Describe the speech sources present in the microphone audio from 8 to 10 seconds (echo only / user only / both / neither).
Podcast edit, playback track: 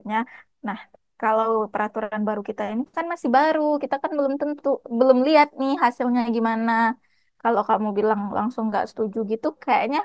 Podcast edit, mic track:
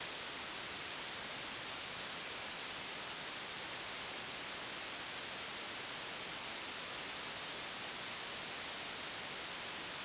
neither